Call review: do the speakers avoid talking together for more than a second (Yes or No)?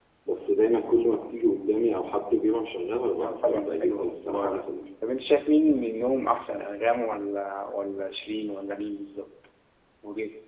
No